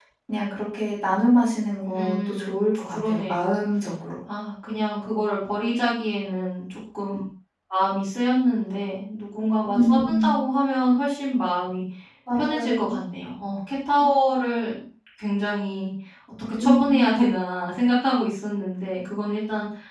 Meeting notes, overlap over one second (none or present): present